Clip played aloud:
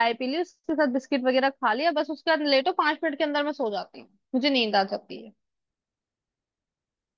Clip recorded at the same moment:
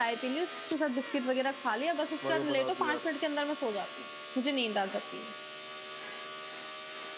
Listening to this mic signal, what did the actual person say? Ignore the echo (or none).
मगर बना दो यार